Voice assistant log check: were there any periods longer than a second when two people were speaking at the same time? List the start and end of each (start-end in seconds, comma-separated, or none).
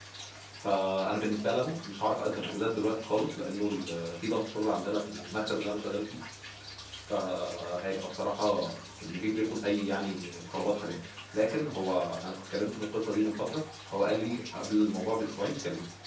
none